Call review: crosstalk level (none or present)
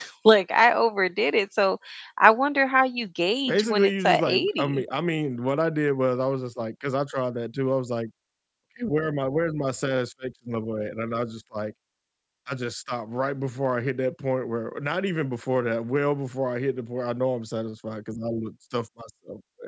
present